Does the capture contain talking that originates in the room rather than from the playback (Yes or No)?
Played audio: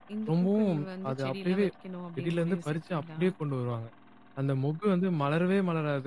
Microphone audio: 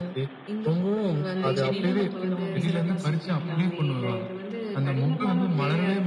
Yes